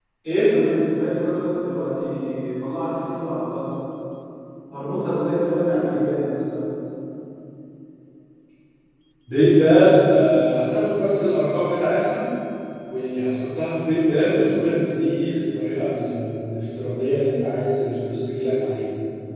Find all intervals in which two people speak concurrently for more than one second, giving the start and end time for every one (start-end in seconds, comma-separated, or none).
none